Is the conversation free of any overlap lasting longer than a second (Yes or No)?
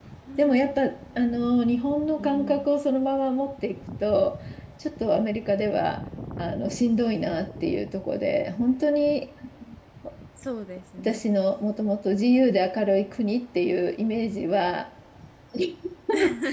Yes